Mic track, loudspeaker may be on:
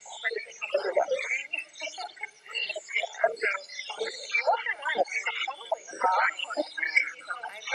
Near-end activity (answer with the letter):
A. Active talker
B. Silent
B